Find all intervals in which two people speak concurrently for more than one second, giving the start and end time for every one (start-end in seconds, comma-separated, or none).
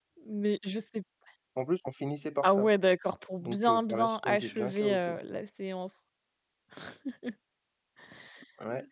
3.4-5.1